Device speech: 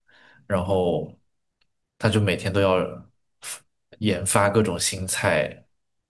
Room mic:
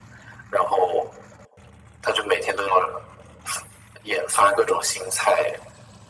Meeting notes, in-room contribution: none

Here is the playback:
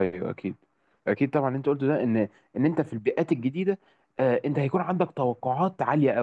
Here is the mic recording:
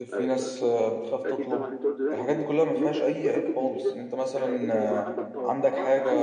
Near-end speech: present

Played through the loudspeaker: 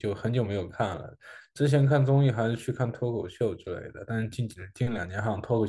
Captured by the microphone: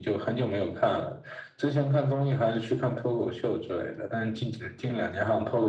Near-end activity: none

